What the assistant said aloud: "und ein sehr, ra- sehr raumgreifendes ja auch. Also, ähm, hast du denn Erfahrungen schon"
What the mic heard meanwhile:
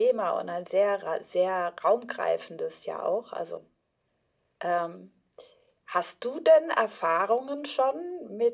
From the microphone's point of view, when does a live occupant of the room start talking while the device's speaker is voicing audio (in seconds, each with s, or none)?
none